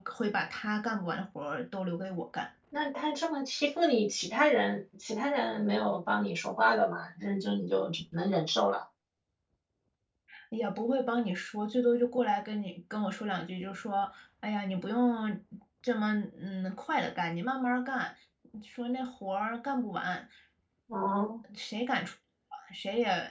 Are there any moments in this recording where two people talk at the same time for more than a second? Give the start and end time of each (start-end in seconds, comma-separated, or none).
none